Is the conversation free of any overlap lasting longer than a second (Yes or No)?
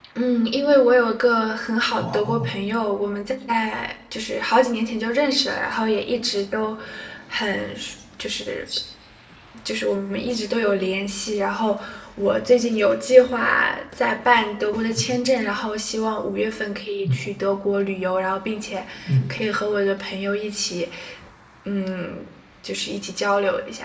Yes